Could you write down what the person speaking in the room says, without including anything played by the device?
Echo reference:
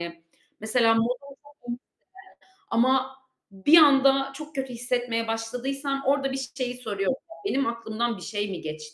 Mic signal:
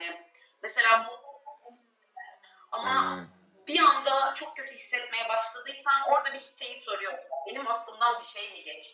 Eee,

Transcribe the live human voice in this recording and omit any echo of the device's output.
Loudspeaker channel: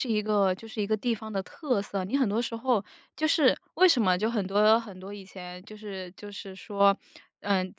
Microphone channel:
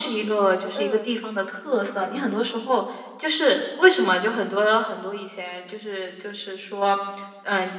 嗯。

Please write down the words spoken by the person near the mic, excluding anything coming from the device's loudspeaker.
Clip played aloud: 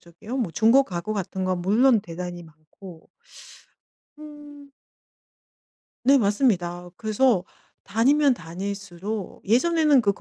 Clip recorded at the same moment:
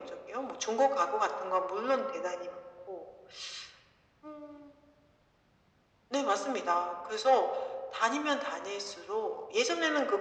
none

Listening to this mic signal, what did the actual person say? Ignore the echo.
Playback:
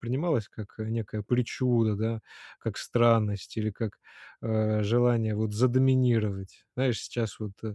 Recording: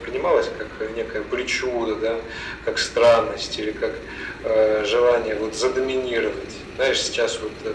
none

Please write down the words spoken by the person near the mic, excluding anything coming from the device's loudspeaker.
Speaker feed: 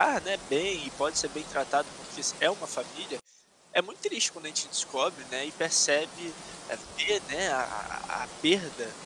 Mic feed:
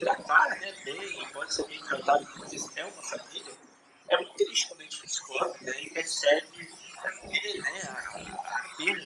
none

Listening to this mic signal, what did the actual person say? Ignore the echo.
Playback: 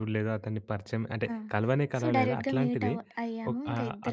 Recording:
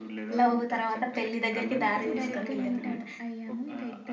లవ్ తర్వాత పెళ్లి దగ్గరికి దారి దీసుకొని వెళ్ళిందనమాట.

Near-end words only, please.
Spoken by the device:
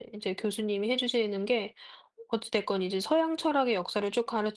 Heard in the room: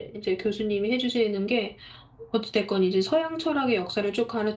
none

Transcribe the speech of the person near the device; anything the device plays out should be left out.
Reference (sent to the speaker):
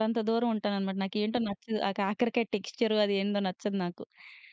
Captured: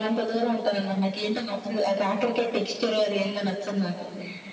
none

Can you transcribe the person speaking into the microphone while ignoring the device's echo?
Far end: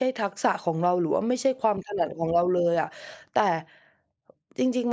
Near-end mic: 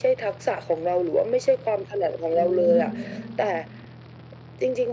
อืม

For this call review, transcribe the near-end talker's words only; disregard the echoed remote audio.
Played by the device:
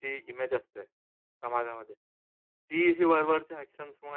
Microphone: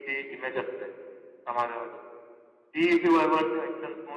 none

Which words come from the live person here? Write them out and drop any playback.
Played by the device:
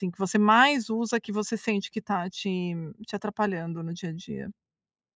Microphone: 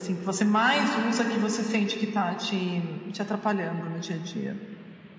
none

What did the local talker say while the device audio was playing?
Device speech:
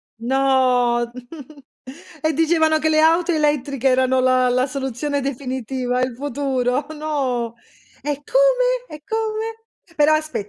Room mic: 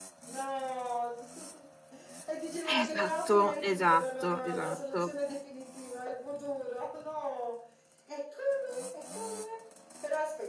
Esatto, esatto, esatto.

